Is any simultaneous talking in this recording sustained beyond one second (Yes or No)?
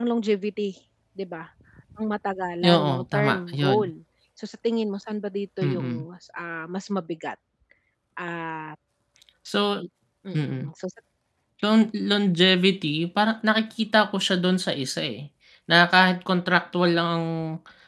Yes